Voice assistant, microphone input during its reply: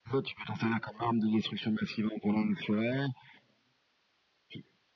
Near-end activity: none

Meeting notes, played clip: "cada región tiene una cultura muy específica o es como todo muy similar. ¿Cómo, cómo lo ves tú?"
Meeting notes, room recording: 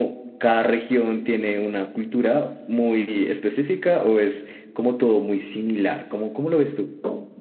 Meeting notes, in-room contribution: none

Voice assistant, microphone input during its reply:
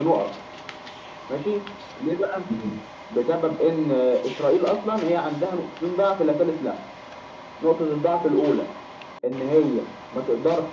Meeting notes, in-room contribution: present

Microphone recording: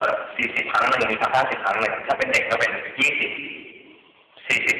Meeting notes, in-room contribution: none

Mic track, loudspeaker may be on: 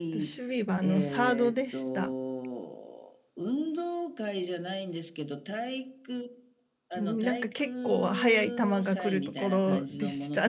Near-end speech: present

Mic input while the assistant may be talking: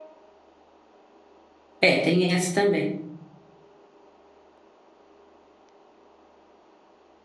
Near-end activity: present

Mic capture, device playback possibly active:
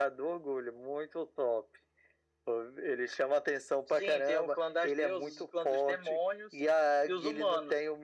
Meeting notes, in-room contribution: none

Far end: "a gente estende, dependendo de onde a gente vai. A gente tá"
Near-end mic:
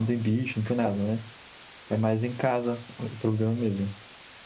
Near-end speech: present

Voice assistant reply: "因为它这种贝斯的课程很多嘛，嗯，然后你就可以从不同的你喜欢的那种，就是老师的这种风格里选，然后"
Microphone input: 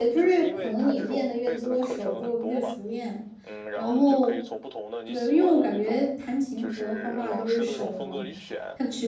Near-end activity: present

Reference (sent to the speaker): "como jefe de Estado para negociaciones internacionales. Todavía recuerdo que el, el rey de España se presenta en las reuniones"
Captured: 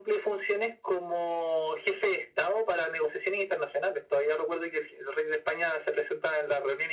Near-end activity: none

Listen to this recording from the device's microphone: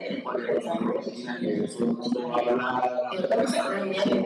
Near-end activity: none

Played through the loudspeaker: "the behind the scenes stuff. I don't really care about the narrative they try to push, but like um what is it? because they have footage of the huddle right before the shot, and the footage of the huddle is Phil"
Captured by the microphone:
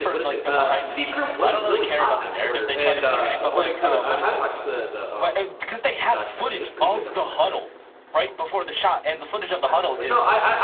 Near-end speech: present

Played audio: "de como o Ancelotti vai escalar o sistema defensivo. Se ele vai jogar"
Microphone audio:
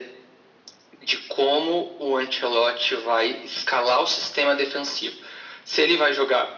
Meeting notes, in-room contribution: none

